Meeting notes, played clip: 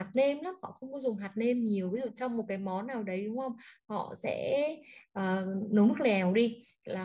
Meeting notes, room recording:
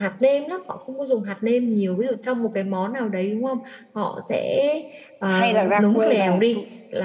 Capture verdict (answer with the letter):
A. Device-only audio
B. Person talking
B